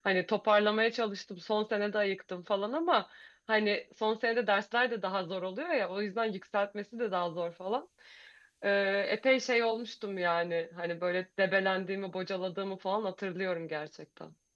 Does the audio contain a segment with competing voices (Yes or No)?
No